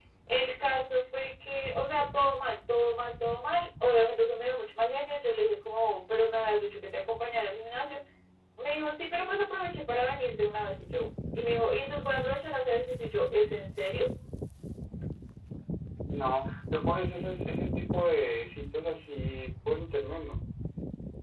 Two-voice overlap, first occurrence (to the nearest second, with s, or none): none